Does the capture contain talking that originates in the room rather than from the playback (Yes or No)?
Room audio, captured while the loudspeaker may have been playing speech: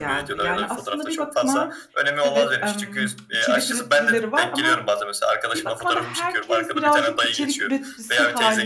Yes